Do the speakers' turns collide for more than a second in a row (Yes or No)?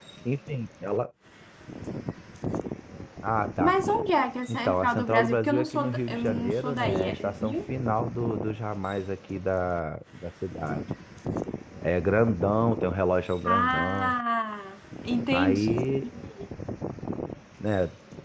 Yes